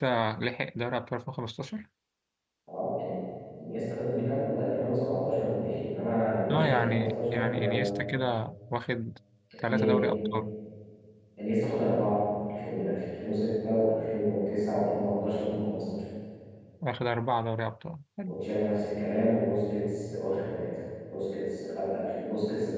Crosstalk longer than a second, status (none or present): present